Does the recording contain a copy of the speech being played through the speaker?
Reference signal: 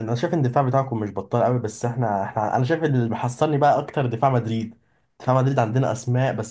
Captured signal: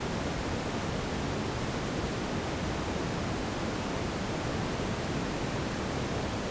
No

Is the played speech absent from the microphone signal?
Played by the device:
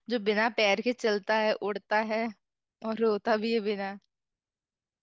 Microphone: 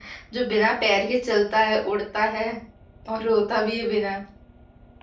No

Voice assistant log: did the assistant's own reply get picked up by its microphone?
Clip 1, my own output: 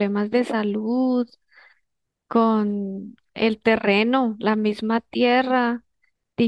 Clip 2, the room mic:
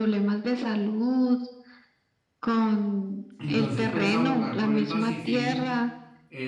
Yes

